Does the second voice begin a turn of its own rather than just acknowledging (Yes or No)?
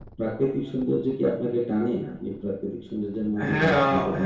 Yes